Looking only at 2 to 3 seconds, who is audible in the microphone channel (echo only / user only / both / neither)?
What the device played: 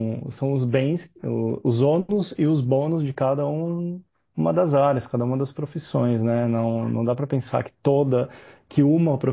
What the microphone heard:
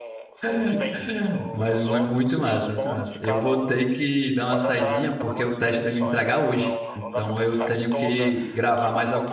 both